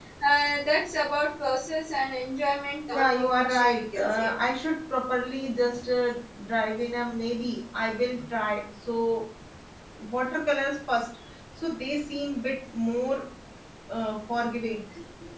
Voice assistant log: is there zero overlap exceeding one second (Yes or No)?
No